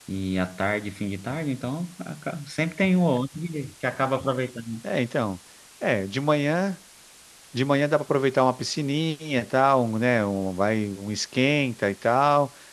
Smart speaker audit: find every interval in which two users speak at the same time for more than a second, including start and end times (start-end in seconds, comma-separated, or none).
none